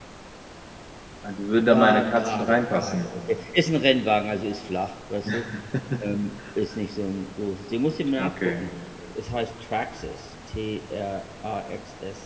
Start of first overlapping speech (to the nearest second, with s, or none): 2 s